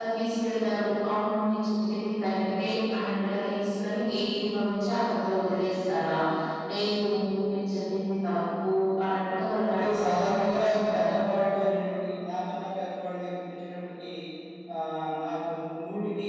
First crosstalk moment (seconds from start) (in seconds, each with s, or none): 9.8 s